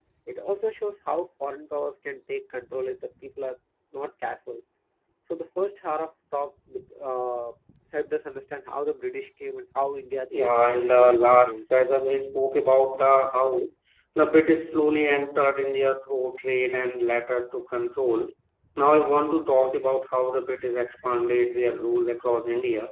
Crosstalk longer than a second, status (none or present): present